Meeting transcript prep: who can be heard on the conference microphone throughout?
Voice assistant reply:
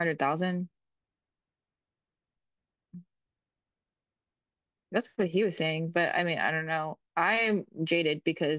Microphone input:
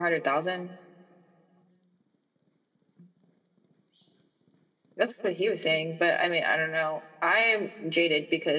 echo only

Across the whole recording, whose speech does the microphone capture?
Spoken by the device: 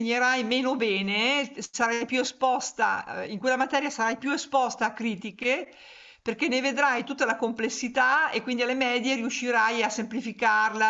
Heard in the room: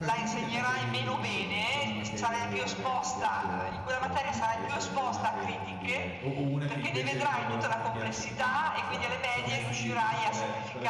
both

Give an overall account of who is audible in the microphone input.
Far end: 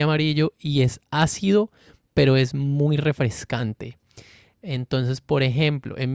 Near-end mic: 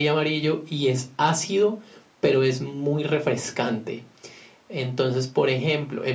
echo only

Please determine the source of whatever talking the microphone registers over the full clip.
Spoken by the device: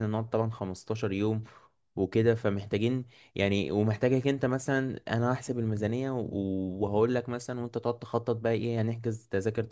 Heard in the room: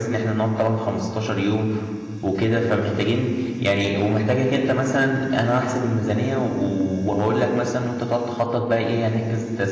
echo only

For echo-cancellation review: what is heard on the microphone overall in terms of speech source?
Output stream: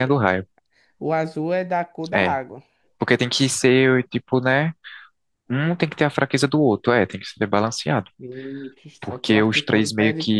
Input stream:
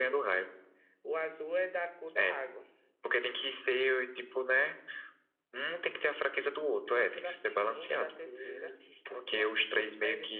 both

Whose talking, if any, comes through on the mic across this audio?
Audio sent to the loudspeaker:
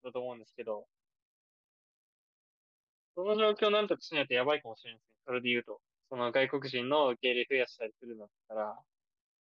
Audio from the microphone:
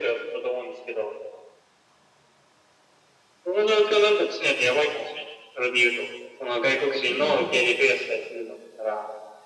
both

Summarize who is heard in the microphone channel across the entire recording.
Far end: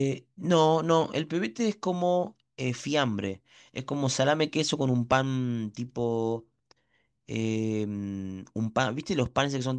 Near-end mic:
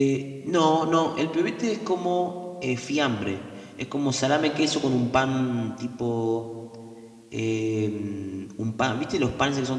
echo only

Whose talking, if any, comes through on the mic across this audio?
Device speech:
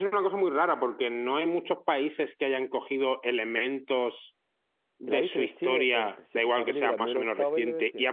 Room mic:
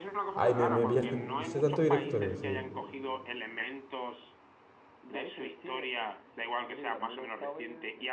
both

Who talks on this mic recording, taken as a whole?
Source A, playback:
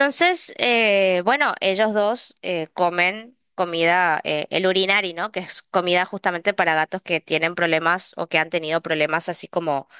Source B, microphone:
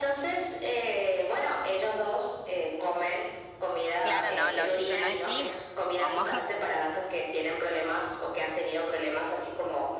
both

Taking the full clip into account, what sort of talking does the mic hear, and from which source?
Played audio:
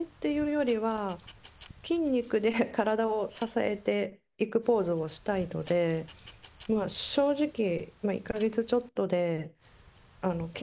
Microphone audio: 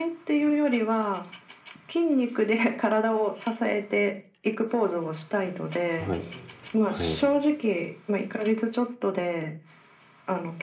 both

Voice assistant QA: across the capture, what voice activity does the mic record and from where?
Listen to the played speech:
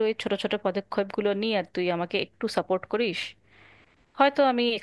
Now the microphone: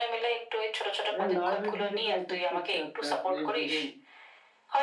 both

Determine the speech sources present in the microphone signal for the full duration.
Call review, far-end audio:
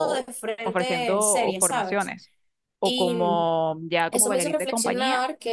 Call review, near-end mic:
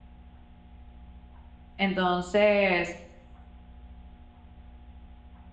user only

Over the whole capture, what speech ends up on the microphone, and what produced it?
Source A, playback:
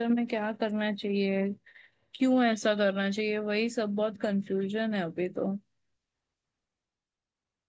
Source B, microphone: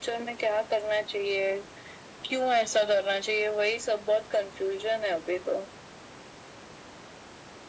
echo only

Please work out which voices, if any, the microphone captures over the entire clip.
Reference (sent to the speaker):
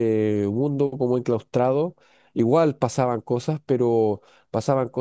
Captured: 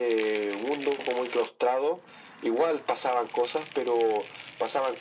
echo only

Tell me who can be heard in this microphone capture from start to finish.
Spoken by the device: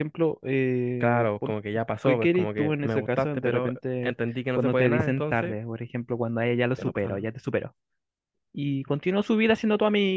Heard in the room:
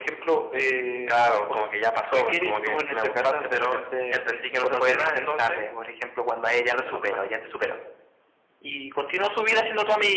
echo only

